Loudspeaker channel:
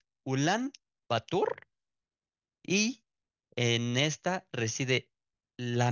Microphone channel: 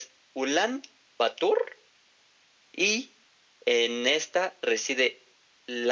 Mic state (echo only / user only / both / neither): echo only